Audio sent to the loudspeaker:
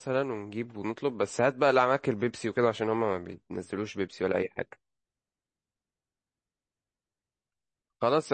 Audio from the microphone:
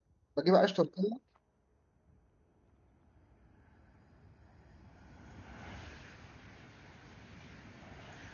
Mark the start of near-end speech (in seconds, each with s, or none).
0.4 s